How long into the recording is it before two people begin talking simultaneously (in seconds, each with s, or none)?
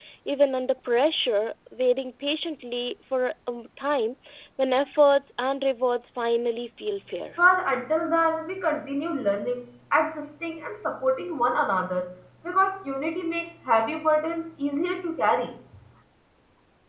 none